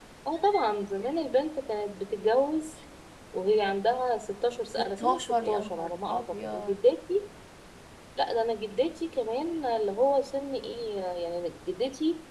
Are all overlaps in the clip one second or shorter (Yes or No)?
No